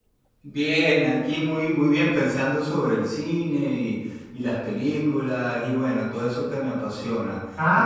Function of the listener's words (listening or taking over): taking over